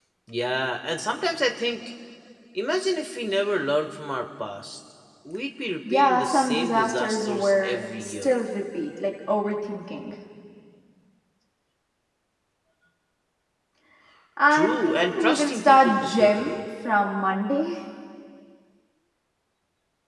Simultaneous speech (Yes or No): Yes